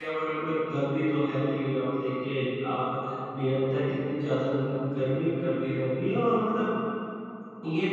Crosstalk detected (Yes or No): No